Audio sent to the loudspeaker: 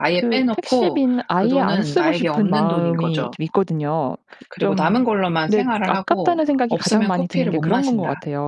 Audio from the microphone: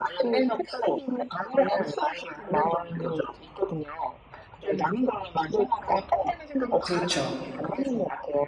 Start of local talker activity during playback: 6.8 s

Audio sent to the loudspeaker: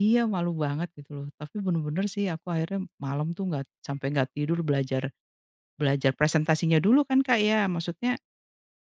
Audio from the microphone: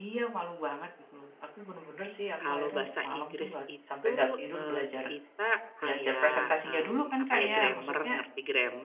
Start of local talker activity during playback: 2.4 s

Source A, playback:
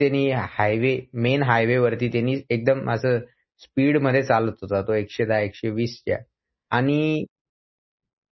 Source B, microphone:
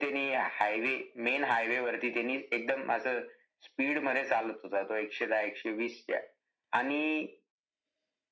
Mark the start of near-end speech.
none

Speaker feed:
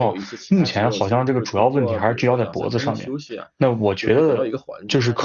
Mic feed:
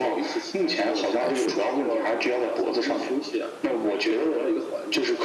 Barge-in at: 1.2 s

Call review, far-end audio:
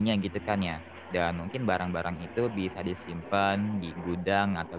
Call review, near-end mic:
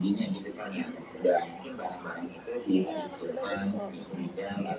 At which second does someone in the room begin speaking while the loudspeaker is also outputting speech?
2.8 s

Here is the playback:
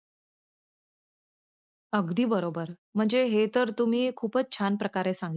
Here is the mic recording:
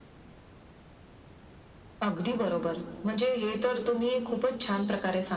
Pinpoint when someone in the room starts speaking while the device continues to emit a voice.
none

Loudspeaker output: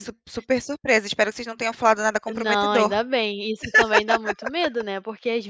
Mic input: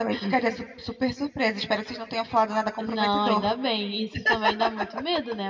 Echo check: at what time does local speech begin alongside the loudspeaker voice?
none

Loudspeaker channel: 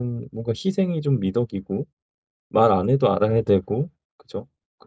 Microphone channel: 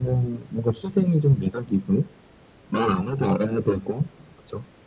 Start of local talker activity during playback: none

